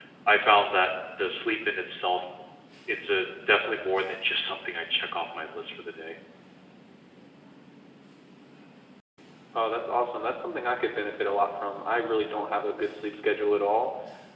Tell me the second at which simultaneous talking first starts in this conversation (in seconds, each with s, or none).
none